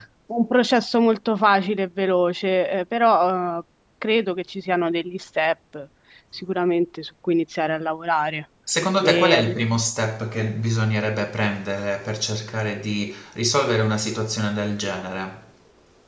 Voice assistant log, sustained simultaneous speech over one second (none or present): none